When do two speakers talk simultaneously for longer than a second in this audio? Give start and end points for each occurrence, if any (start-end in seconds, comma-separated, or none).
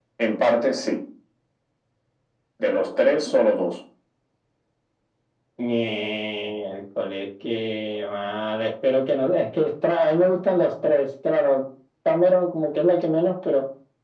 none